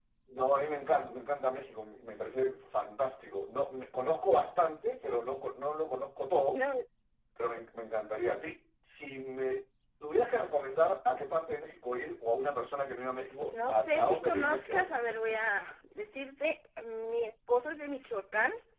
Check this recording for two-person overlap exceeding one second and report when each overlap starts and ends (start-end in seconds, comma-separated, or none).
13.5-14.9